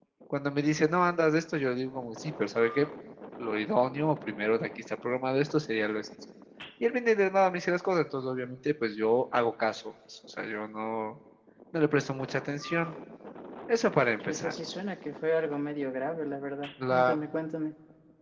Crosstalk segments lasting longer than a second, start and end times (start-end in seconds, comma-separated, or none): none